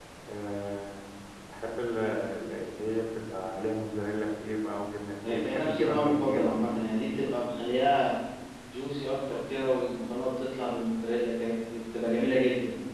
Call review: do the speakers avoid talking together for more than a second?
No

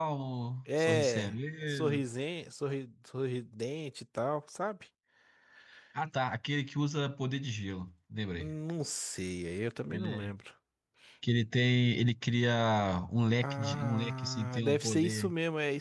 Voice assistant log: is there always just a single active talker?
No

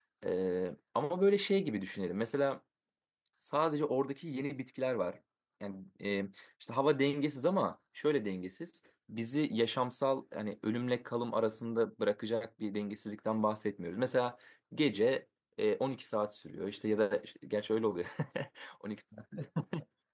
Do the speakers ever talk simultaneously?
No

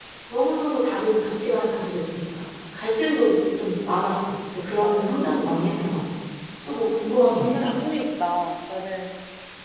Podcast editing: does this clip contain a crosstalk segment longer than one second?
Yes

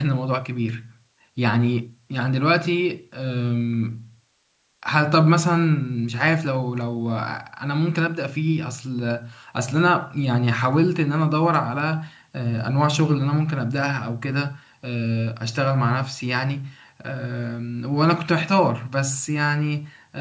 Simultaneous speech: No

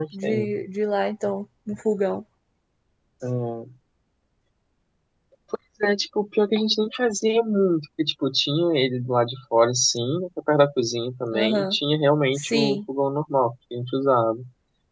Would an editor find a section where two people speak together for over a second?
No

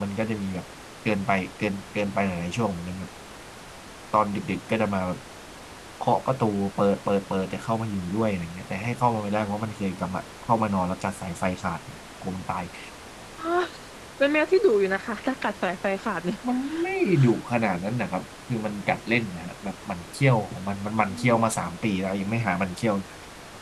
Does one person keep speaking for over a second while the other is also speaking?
No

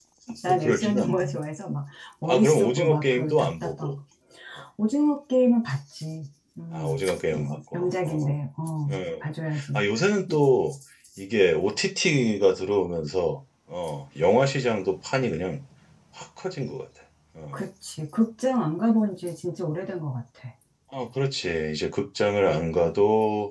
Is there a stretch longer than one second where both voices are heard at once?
Yes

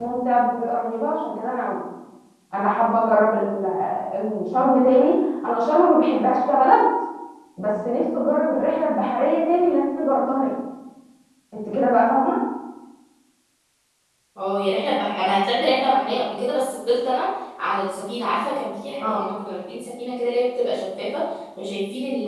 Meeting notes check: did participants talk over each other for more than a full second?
No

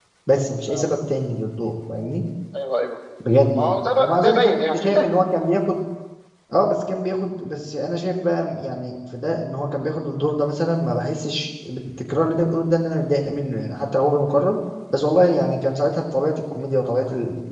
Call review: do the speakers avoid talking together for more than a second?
No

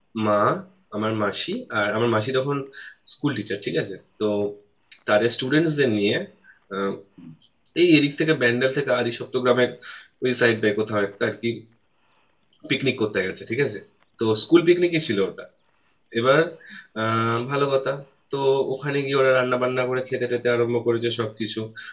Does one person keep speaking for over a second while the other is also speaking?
No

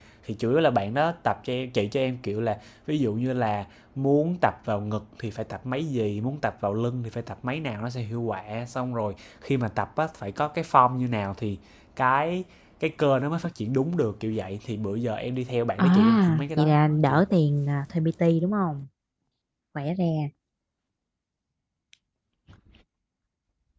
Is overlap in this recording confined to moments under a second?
No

